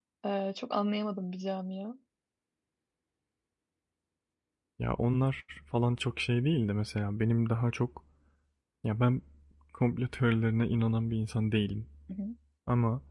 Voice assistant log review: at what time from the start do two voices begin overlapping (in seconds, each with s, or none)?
none